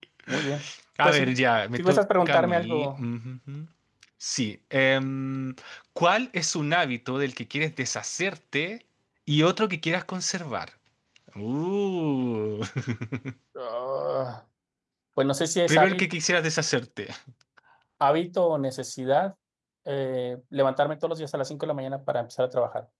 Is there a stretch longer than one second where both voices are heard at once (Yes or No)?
Yes